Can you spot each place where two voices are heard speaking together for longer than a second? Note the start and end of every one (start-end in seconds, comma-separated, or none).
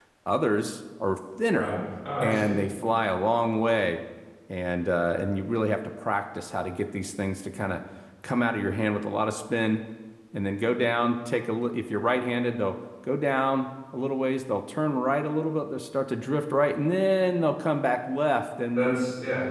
none